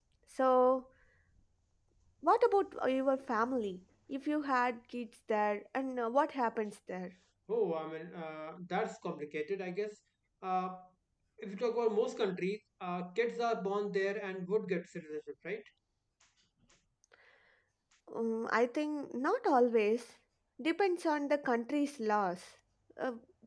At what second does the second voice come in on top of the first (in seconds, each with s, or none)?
none